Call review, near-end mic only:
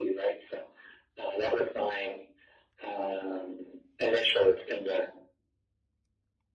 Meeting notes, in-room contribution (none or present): none